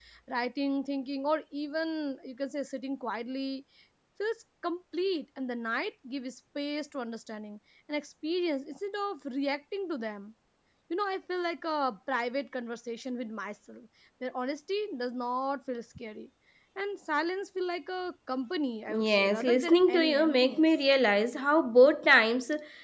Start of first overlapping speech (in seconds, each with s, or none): 18.9 s